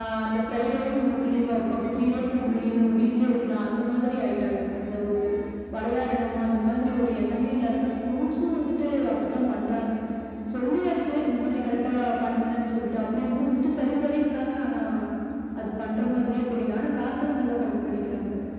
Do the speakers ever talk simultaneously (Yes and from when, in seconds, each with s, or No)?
No